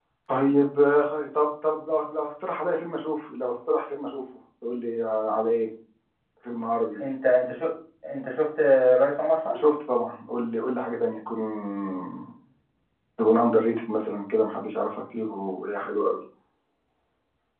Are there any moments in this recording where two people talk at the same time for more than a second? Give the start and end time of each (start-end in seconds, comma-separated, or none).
none